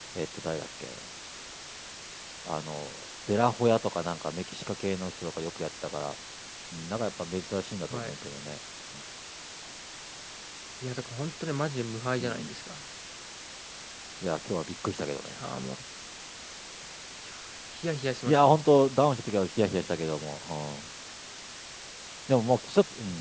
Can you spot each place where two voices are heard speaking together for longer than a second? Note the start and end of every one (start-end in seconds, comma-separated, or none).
none